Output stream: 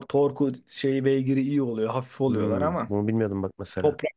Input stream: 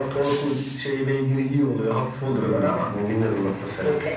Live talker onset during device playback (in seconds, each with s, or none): none